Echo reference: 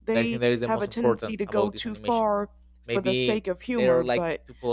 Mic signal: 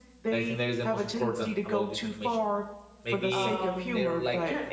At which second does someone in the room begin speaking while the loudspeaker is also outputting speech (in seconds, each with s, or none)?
3.4 s